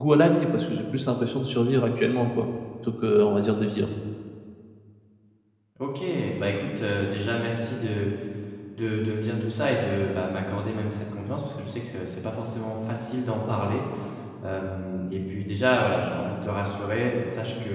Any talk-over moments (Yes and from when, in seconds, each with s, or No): No